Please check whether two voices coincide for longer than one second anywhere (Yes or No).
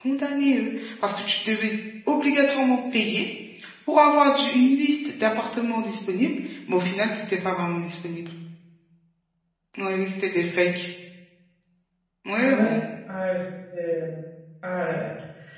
No